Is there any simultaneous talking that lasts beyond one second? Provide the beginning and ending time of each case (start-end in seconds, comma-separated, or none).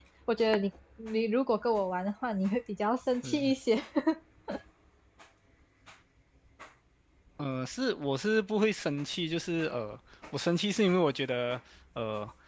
none